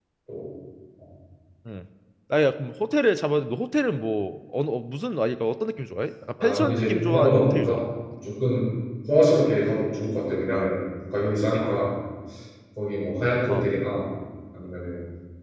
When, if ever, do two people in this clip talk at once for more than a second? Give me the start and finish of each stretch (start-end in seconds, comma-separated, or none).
6.4-7.8